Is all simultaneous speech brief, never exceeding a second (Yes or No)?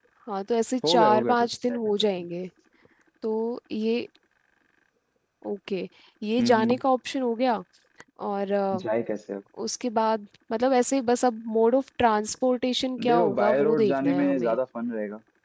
No